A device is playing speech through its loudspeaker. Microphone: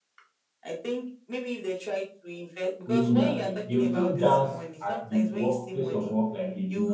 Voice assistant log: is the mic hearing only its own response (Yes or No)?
No